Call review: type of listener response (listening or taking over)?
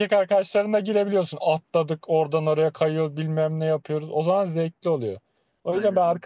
listening